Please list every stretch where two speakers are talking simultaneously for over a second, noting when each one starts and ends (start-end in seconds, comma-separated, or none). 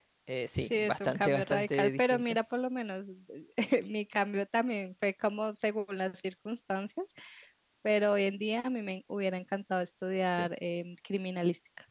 0.6-2.2